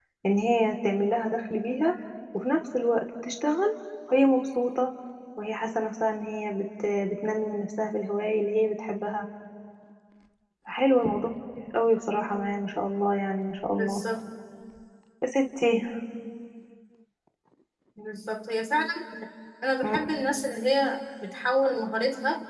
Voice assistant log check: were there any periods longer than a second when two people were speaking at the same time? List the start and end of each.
none

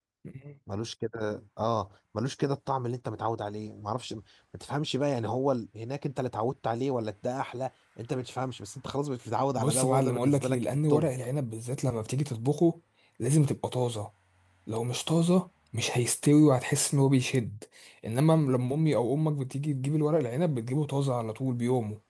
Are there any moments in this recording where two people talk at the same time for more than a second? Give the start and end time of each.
9.6-11.1

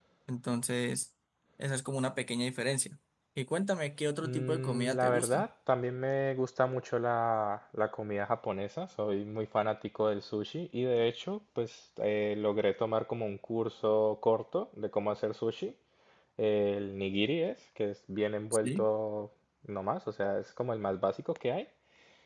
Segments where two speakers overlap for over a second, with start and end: 4.2-5.5

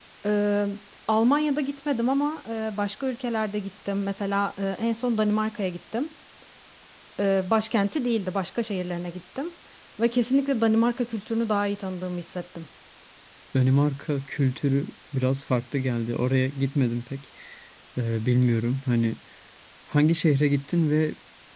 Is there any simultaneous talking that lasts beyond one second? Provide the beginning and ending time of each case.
none

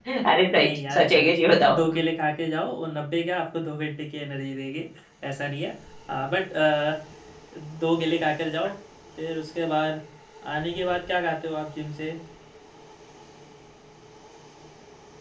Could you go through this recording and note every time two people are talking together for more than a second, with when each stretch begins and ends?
0.6-1.9

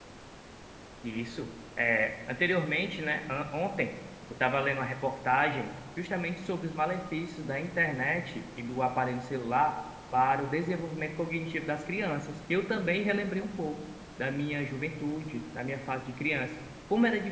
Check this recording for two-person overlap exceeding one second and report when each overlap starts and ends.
none

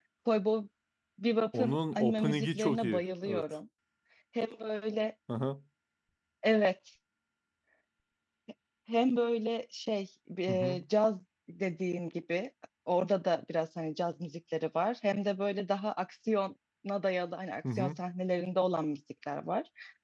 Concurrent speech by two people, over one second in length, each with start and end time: 1.6-3.4

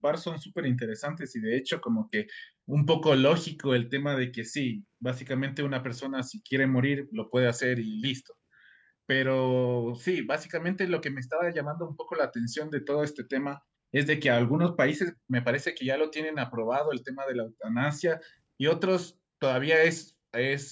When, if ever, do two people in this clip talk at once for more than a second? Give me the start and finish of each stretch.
none

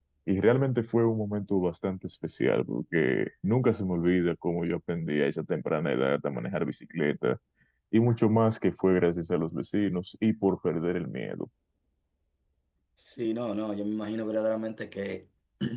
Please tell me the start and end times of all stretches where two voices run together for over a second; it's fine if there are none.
none

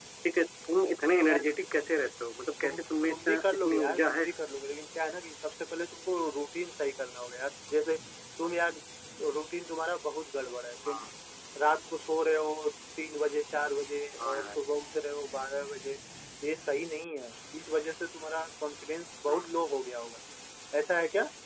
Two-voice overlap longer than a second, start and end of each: 2.6-4.2

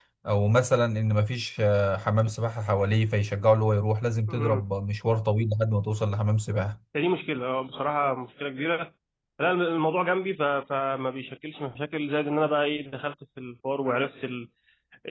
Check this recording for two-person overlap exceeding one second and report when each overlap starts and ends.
none

